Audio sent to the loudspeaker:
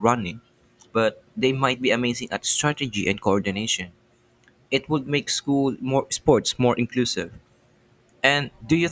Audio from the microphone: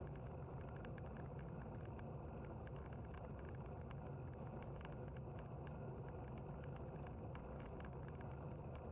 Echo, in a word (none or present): none